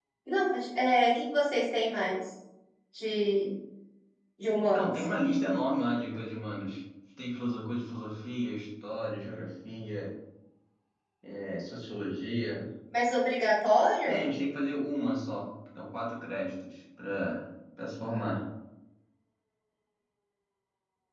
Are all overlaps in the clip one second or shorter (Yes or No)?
Yes